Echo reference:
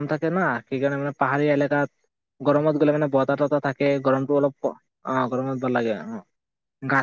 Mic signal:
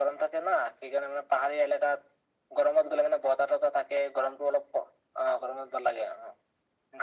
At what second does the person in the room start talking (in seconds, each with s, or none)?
none